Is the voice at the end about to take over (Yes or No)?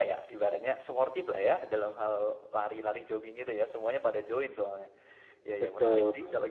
No